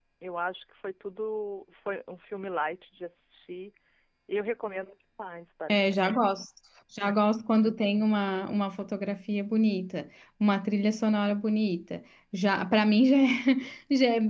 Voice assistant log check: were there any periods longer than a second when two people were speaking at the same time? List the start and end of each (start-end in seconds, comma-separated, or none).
none